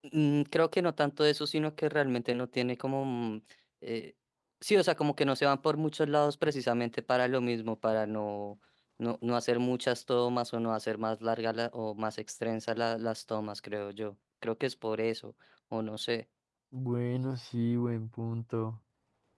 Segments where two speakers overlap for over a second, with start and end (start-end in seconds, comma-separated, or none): none